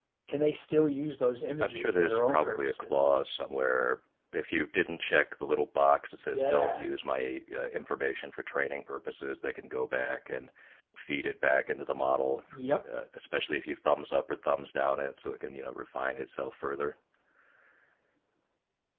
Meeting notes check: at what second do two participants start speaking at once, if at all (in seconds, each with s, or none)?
1.6 s